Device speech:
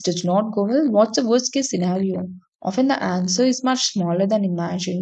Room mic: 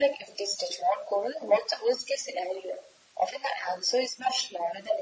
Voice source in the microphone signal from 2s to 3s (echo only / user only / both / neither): echo only